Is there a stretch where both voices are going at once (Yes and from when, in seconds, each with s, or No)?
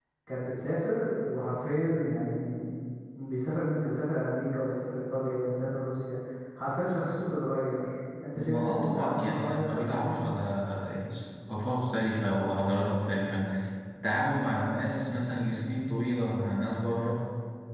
Yes, from 8.4 s